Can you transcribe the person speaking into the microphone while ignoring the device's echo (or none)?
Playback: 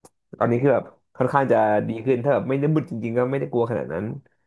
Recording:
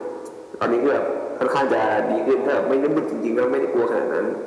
none